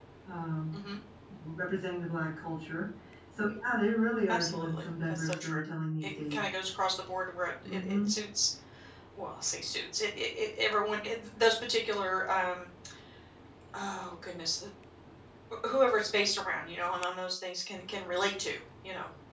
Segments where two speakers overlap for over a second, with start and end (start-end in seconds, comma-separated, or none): 4.3-5.6